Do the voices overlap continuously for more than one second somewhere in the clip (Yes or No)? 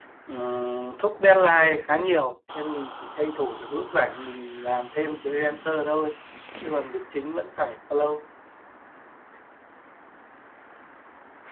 No